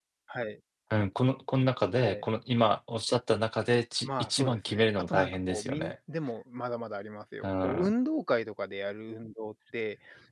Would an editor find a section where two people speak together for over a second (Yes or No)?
Yes